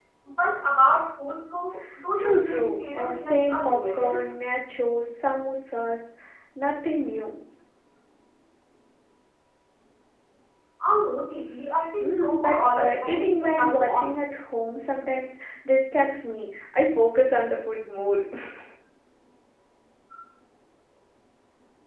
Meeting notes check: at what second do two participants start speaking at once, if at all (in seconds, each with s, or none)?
2.2 s